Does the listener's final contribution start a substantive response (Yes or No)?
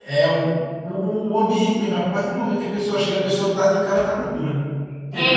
Yes